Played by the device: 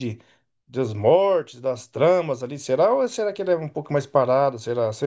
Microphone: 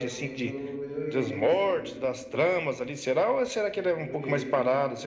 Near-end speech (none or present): present